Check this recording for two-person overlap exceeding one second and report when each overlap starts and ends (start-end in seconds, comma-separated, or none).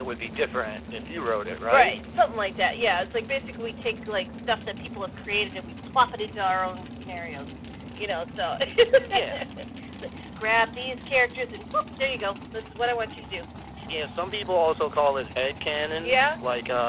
none